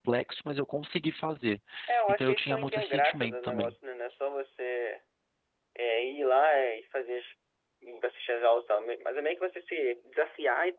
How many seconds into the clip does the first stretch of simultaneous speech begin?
2.1 s

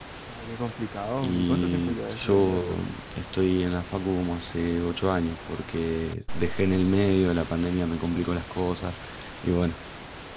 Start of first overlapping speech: 1.2 s

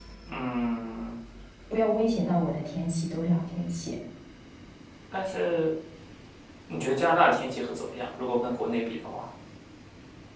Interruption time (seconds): none

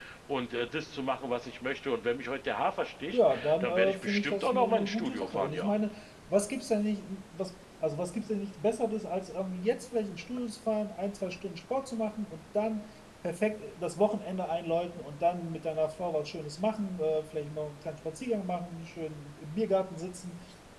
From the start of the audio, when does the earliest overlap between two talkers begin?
3.1 s

